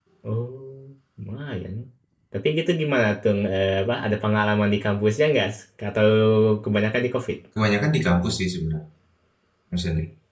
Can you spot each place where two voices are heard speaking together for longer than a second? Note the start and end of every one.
none

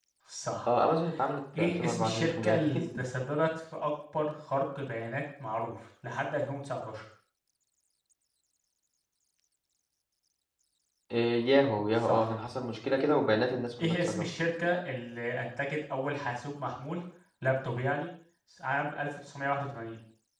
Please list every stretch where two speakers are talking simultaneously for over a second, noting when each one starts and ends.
1.6-2.8

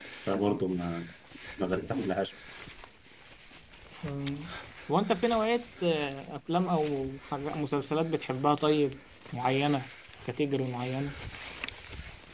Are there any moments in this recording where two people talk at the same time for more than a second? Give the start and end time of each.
none

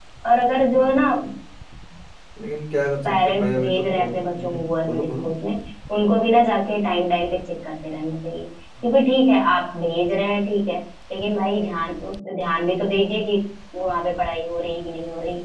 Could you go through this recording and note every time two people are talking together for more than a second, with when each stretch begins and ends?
3.1-5.2

